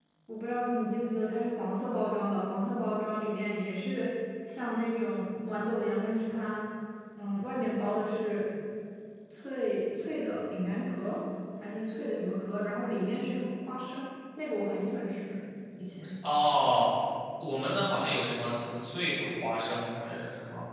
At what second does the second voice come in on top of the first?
none

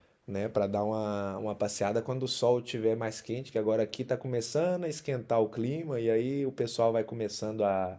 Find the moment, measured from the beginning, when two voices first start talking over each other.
none

